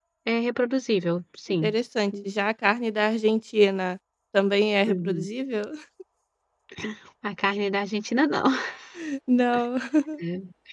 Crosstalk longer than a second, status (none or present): none